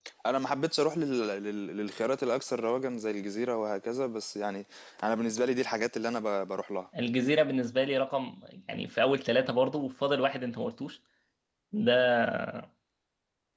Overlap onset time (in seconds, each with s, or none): none